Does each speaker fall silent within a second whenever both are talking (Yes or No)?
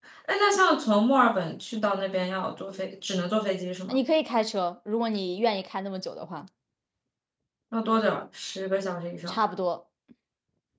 Yes